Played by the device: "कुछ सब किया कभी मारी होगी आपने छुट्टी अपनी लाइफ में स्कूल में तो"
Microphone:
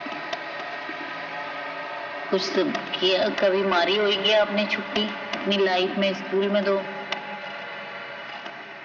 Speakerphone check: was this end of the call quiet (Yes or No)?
Yes